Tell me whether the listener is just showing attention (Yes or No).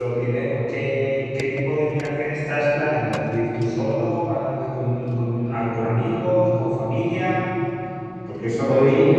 Yes